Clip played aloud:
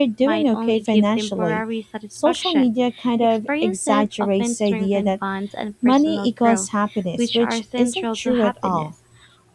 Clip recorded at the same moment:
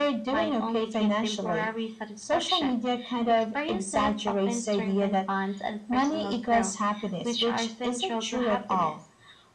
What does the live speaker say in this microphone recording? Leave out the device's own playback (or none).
none